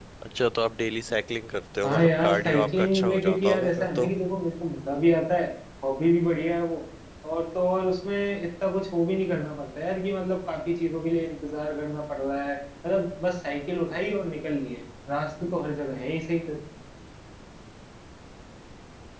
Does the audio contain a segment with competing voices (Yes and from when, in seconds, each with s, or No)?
Yes, from 1.8 s